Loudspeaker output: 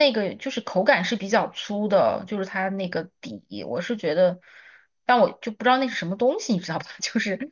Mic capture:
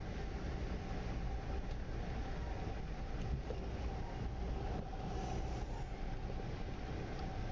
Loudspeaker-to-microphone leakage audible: No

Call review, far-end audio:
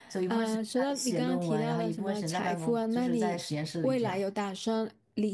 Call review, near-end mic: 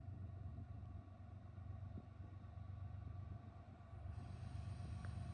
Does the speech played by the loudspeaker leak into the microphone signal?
No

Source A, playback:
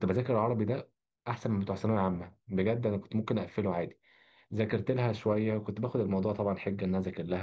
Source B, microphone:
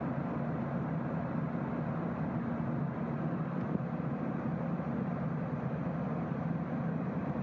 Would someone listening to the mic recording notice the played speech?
No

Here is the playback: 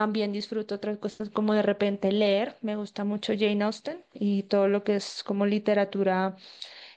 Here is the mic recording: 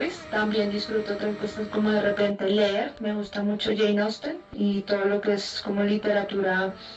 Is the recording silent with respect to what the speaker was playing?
No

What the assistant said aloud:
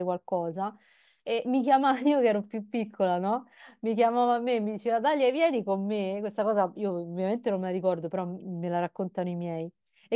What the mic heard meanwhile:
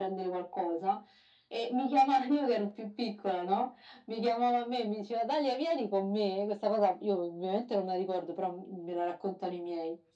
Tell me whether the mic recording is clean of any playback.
No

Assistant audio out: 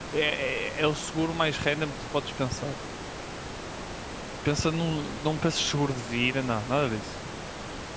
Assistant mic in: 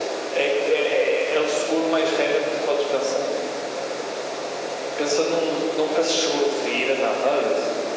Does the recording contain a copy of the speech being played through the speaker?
Yes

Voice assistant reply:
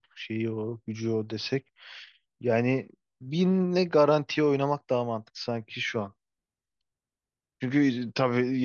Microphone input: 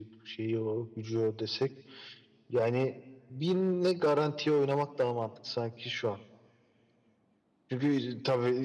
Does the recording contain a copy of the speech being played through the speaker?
Yes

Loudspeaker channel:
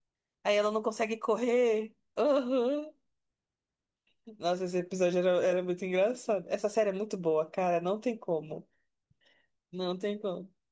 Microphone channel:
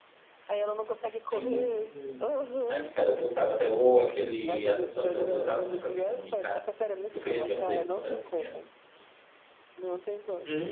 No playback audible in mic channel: No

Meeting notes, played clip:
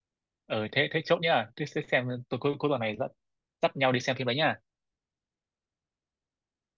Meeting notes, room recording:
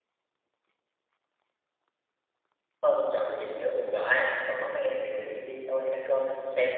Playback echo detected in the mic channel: No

